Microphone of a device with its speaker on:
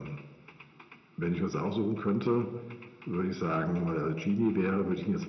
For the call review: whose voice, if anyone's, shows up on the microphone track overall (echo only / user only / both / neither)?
echo only